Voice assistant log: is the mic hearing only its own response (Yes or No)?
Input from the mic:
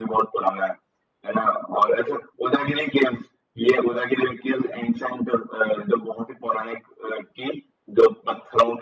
Yes